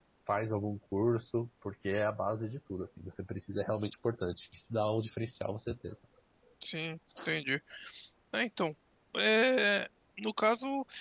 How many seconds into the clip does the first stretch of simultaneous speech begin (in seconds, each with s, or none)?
none